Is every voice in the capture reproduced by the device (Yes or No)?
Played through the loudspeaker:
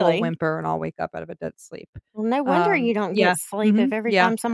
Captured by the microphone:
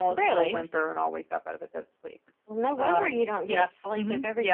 Yes